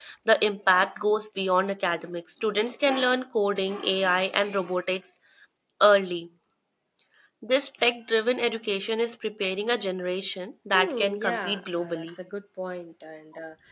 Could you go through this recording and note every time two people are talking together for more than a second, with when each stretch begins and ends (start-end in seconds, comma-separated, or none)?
10.7-12.1